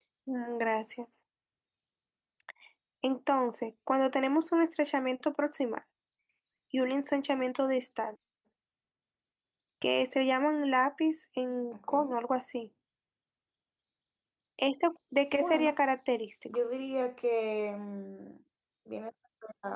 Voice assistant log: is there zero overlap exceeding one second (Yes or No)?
Yes